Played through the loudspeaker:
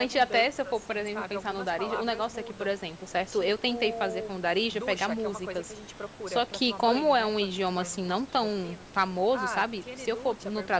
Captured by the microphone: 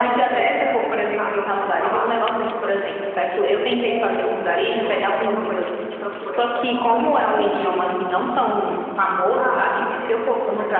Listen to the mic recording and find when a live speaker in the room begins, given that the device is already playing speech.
none

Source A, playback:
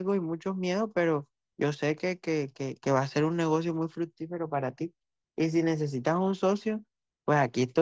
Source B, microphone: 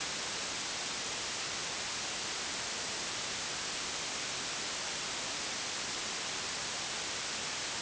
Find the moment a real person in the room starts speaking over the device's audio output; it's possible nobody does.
none

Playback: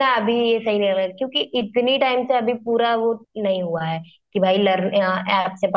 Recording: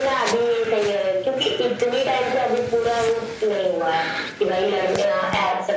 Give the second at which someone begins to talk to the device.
none

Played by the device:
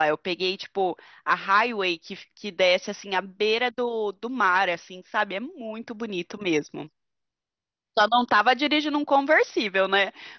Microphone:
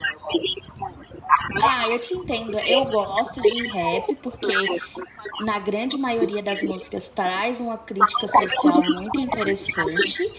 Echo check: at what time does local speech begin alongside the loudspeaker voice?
1.6 s

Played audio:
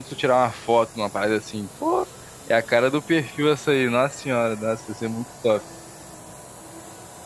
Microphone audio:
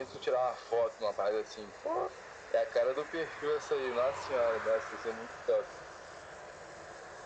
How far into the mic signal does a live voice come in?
none

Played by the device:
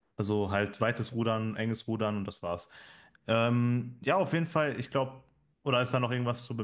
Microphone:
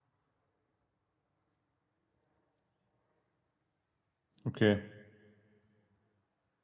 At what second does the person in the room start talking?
4.4 s

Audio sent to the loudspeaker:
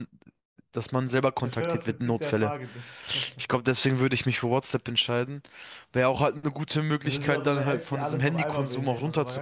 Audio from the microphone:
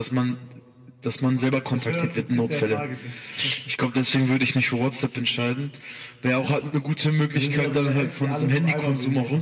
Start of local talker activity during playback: none

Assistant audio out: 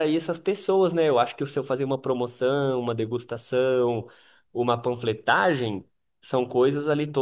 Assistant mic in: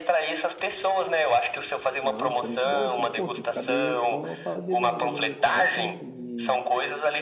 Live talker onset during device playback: 2.0 s

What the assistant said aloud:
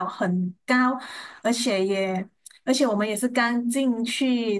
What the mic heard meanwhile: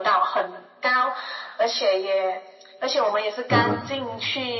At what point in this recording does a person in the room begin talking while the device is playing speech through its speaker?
3.5 s

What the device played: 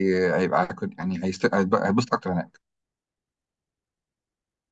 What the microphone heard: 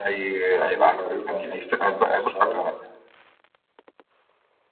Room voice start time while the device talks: 0.5 s

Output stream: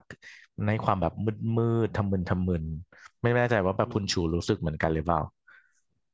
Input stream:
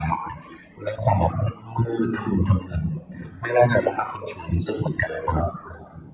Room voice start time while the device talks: none

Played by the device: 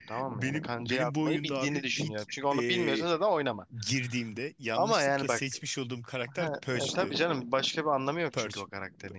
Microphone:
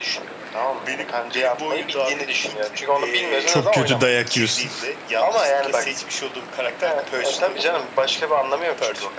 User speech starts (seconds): 3.4 s

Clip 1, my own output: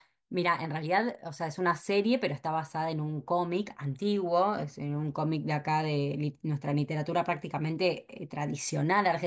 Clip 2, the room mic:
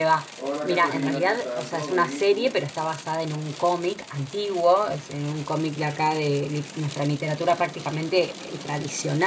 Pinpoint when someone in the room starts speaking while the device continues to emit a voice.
0.4 s

